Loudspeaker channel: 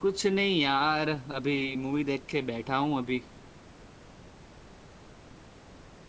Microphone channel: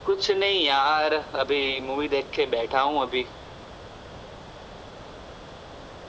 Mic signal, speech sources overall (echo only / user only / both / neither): echo only